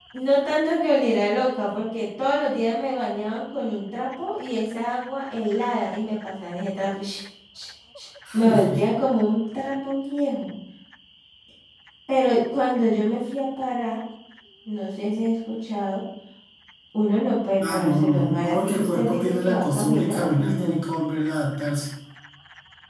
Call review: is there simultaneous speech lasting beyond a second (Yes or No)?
Yes